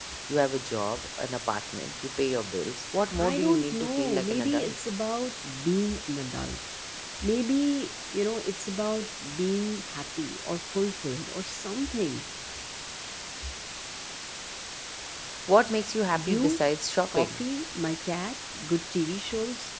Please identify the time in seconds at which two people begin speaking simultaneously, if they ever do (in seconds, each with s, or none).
3.3 s